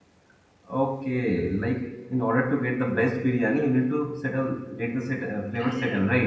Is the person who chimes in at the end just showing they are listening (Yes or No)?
No